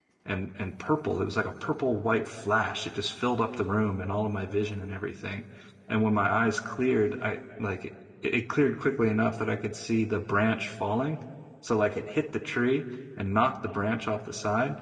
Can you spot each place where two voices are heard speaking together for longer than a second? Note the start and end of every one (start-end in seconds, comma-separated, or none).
none